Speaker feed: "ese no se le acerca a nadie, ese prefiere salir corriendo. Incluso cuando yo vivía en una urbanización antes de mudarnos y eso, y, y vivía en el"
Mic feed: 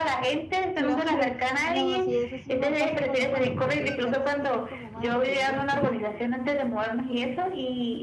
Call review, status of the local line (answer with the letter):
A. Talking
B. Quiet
A